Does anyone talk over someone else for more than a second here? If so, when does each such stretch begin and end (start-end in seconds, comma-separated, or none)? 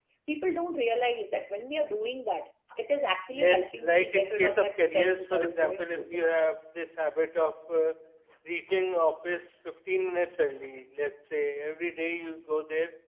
3.3-6.0